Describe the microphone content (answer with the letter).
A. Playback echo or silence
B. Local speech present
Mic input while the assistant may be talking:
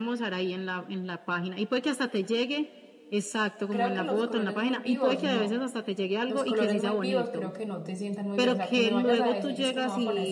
B